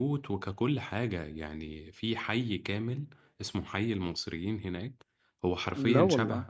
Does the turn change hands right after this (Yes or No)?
No